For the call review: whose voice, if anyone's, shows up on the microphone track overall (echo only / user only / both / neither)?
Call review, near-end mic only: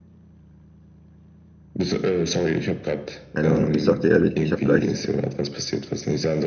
both